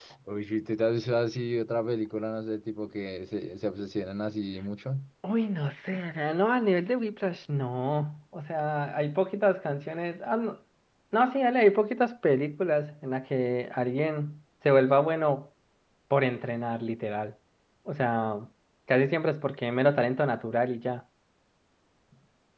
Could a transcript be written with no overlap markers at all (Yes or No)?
Yes